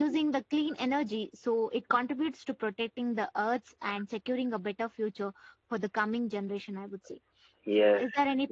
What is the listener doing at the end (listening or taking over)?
taking over